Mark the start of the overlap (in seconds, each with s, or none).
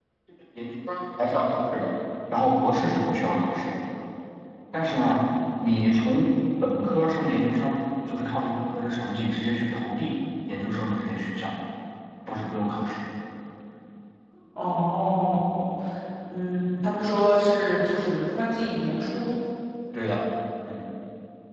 none